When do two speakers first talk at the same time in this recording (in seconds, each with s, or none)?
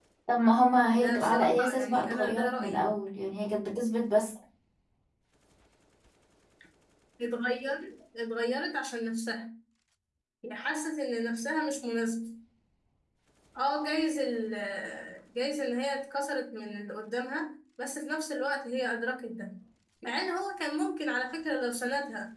0.9 s